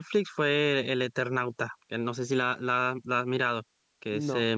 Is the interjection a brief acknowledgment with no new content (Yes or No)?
No